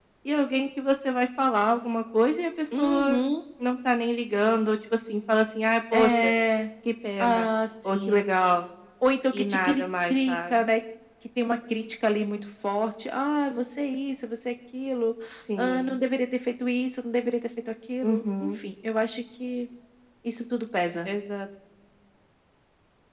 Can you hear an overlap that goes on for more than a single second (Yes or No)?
Yes